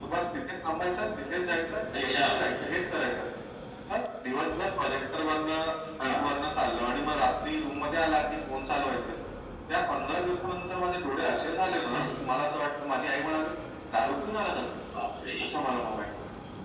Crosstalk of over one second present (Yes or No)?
No